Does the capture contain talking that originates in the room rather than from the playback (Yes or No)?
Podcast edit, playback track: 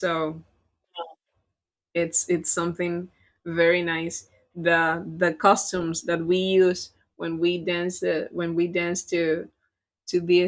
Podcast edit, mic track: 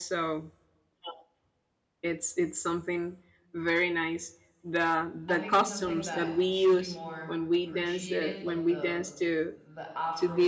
Yes